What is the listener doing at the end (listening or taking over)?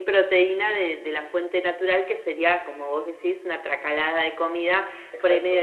listening